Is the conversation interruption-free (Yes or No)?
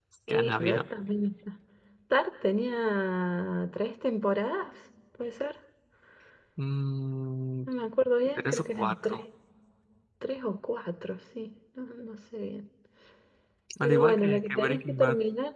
No